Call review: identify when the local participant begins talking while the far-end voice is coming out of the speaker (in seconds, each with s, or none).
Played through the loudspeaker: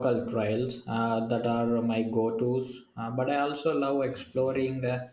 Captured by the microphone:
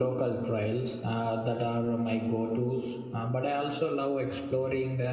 none